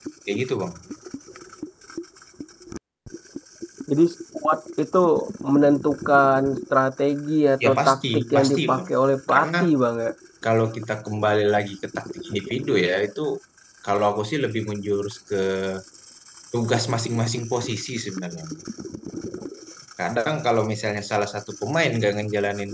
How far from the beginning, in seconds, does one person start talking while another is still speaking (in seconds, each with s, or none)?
7.6 s